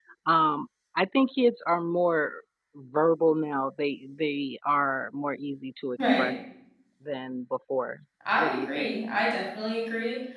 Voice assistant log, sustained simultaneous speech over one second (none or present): none